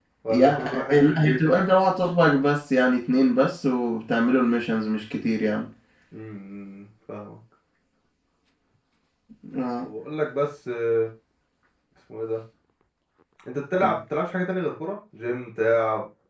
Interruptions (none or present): present